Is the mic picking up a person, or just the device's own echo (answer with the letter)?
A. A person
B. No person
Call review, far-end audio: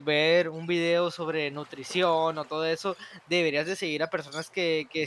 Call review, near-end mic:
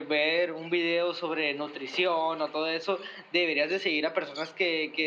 B